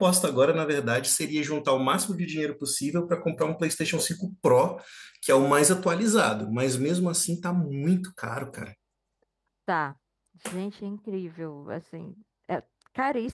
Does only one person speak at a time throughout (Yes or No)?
Yes